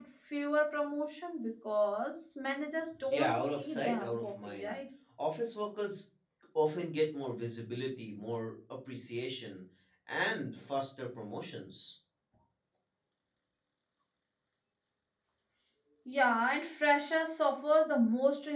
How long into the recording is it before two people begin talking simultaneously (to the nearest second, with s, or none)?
3 s